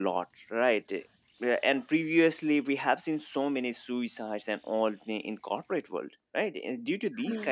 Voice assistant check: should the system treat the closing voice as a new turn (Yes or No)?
No